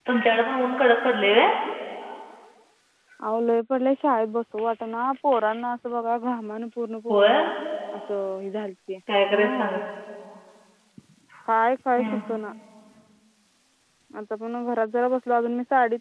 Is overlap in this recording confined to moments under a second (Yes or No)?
Yes